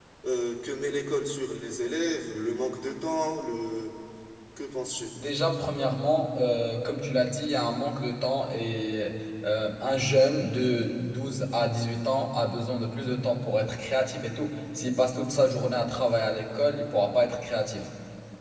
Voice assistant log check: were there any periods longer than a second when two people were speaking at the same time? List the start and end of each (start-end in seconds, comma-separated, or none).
none